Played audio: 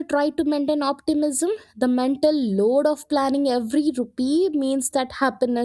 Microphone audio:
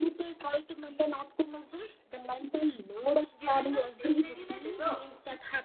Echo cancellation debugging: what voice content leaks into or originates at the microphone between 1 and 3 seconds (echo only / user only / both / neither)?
echo only